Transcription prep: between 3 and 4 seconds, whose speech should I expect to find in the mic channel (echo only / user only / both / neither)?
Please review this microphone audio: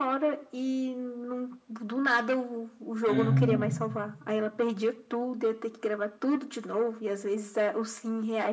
both